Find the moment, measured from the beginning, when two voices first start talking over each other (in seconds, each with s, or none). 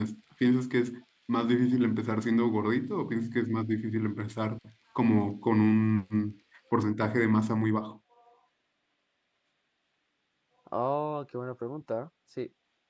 none